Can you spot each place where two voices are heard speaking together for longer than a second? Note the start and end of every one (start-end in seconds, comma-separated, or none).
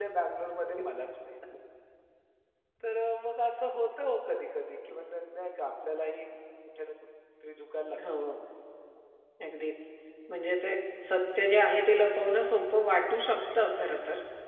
none